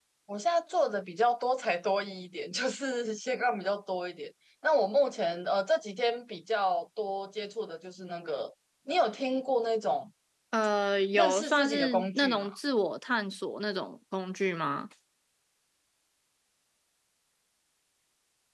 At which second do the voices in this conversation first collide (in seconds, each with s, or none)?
11.2 s